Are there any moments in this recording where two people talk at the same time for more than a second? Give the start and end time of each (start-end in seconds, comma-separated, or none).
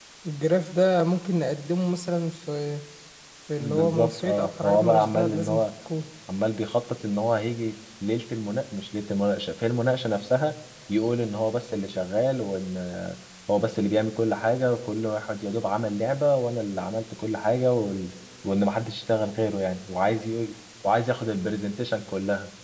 3.6-5.6